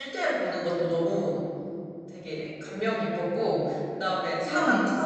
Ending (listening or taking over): listening